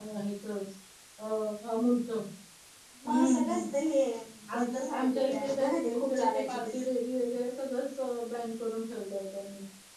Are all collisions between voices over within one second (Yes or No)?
No